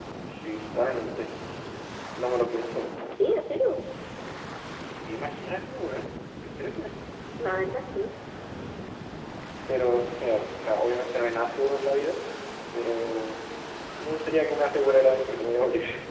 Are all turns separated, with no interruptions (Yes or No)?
Yes